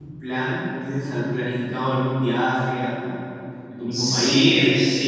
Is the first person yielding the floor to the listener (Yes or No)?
Yes